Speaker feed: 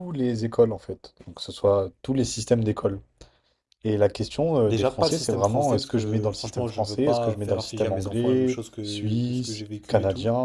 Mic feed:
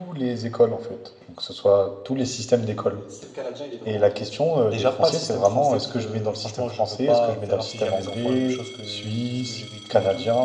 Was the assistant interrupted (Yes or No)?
Yes